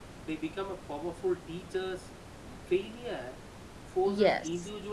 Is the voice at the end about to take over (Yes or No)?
No